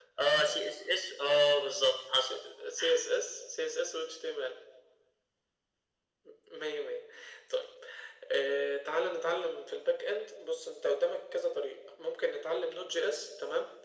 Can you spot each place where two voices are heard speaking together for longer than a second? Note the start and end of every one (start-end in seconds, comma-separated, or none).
none